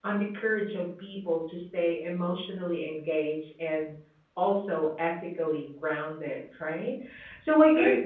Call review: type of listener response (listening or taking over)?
listening